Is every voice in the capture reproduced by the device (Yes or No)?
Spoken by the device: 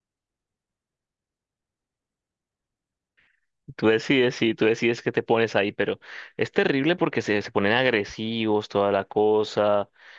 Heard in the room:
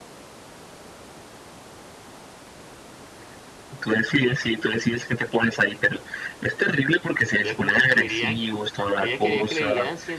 No